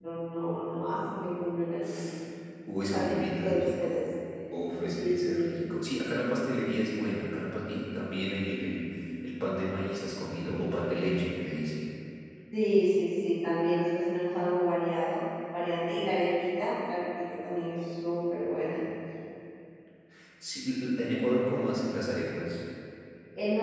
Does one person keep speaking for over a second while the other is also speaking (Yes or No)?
Yes